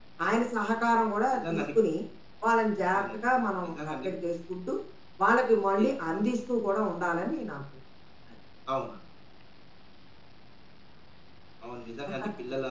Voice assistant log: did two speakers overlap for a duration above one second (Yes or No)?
No